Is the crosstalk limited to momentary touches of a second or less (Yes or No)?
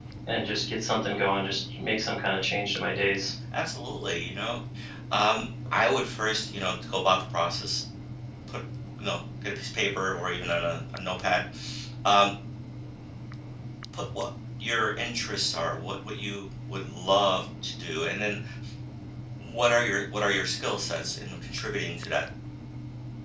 Yes